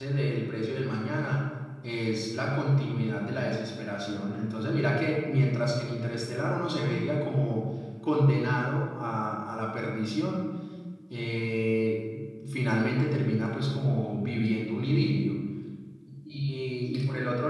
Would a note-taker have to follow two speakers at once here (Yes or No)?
No